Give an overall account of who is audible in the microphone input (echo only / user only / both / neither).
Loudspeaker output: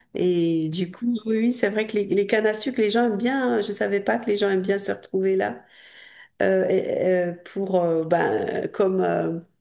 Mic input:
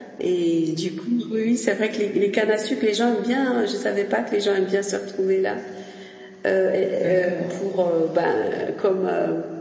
both